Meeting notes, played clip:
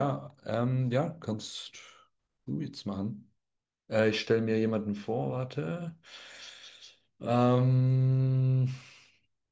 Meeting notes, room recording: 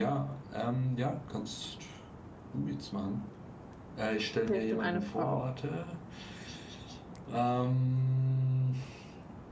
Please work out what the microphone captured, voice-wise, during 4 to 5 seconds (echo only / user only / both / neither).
both